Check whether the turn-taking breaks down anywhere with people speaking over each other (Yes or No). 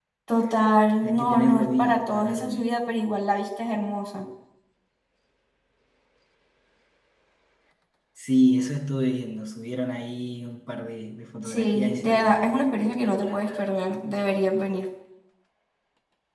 Yes